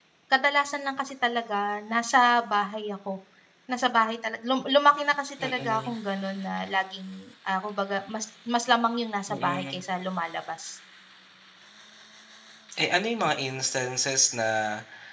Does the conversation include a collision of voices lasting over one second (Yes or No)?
No